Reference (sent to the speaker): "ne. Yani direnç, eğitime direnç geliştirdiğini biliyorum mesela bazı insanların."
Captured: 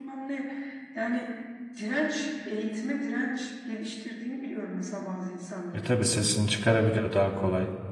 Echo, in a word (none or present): present